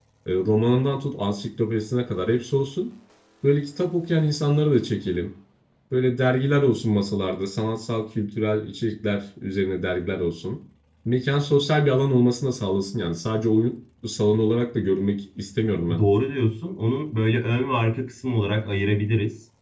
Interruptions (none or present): none